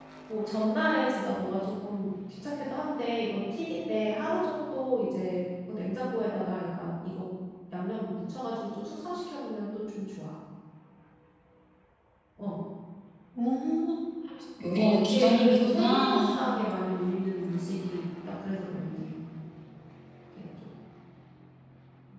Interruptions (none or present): present